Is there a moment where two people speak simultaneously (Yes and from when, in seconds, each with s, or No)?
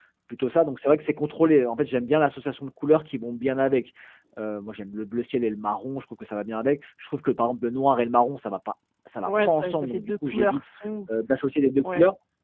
Yes, from 9.2 s